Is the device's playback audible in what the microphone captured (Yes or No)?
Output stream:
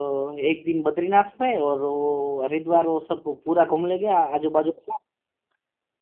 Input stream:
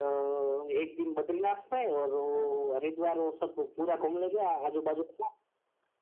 Yes